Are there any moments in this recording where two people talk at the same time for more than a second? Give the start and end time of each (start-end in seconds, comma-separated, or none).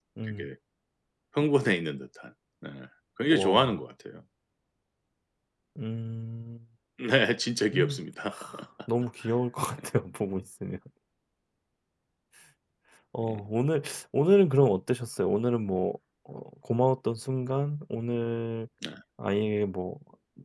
none